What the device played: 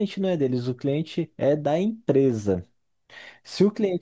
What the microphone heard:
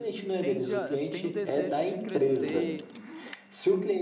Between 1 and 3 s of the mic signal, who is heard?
both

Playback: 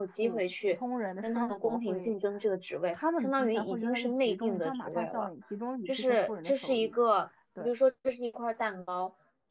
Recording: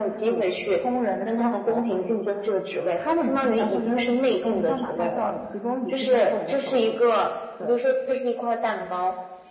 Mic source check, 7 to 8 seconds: echo only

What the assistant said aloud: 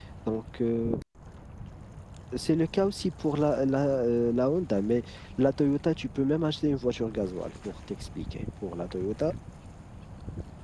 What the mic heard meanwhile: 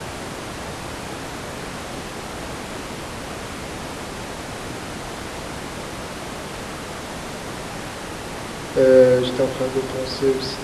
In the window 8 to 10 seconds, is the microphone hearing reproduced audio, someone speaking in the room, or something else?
user only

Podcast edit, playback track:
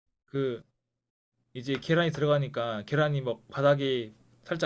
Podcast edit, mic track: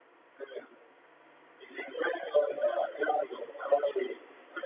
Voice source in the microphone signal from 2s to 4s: echo only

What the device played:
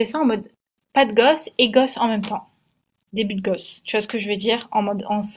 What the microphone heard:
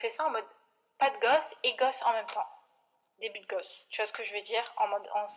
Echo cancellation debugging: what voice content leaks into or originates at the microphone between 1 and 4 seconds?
echo only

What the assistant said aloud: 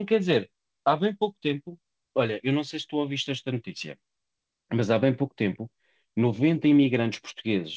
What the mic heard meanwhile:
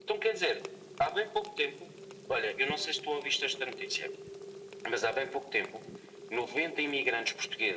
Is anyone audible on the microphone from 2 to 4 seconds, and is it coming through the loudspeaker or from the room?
echo only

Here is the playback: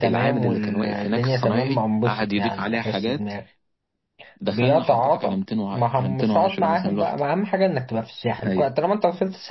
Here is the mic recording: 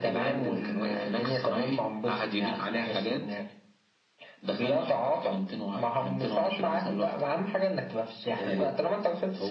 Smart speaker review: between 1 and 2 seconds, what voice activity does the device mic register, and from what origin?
echo only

